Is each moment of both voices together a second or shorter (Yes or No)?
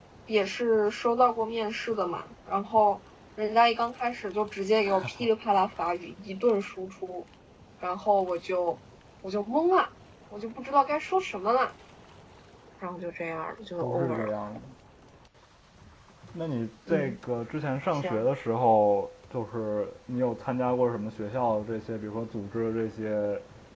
Yes